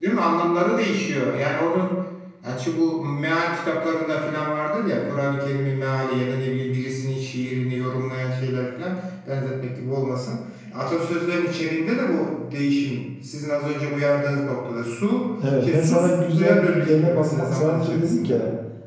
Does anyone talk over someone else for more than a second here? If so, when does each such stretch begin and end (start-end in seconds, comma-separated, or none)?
15.6-18.4